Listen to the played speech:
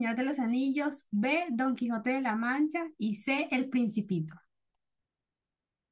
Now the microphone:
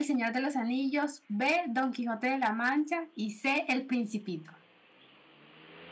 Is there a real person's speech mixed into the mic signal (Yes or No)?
No